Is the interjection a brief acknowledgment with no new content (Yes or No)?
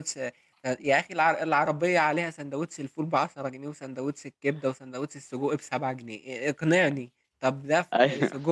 Yes